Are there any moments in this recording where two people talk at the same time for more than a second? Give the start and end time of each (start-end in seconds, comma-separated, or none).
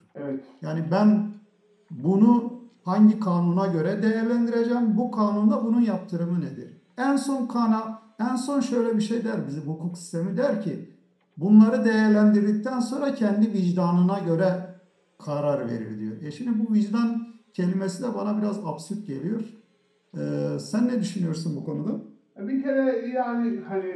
none